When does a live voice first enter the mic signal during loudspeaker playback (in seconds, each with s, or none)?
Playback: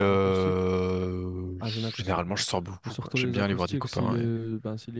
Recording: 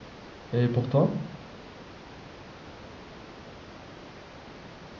0.5 s